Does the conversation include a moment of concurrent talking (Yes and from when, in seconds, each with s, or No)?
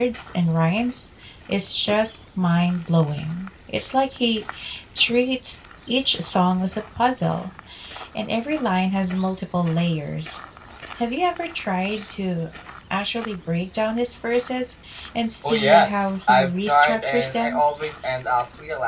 Yes, from 15.4 s